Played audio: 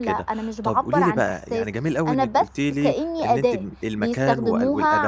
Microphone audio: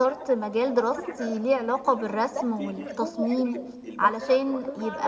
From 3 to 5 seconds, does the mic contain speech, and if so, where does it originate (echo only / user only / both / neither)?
both